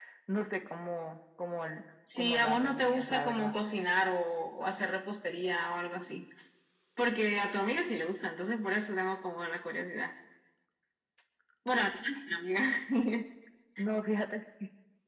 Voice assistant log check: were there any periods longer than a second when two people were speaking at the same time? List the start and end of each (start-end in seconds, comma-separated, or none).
2.2-3.5